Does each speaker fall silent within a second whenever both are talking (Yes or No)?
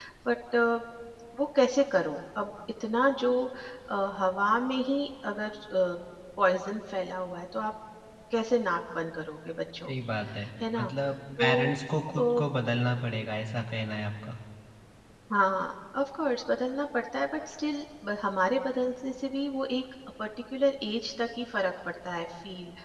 Yes